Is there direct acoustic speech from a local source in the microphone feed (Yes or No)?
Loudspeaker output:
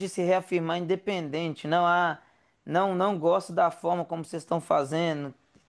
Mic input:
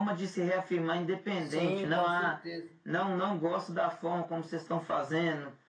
Yes